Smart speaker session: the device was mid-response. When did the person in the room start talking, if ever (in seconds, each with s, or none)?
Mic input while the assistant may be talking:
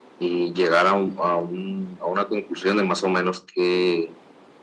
none